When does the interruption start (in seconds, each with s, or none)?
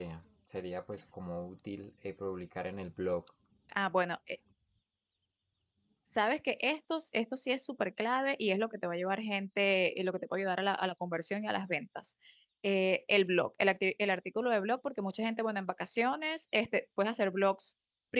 none